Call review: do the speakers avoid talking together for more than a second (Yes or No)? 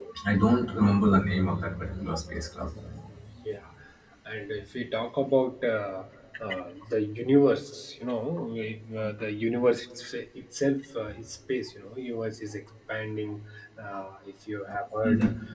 Yes